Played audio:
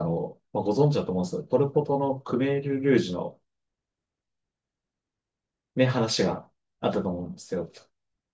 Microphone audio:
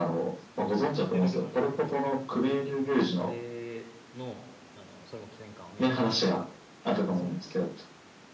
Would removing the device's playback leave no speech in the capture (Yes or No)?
No